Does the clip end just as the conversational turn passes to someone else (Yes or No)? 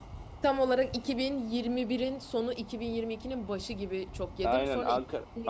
Yes